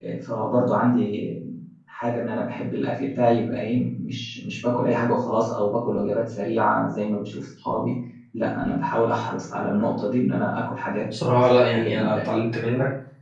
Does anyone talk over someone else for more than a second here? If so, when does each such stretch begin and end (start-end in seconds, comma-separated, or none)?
11.1-12.3